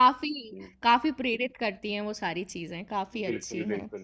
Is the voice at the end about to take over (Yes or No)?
Yes